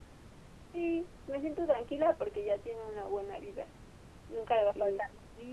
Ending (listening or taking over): listening